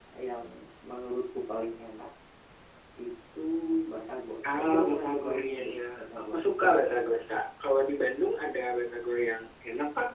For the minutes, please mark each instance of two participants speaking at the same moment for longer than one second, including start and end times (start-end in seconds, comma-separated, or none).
4.6-6.4